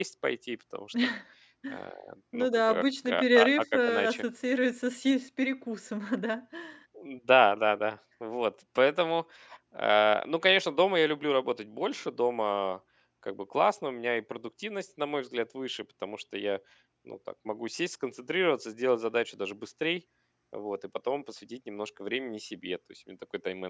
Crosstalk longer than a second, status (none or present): present